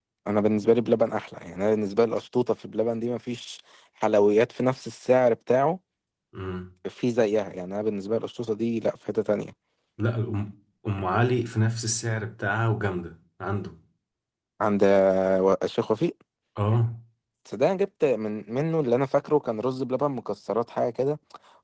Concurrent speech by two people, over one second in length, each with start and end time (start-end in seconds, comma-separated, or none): none